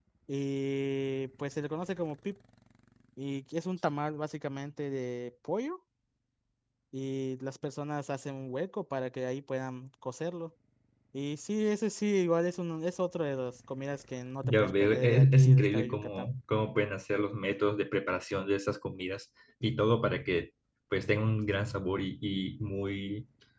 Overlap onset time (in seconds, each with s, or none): 14.4 s